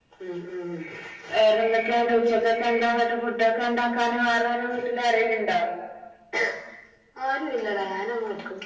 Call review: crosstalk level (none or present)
none